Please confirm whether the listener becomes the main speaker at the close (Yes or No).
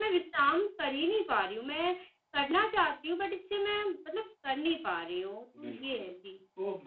Yes